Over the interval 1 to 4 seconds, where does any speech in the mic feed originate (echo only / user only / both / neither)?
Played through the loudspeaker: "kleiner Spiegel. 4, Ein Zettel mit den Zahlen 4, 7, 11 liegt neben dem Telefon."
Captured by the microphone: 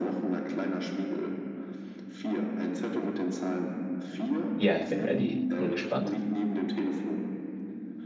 echo only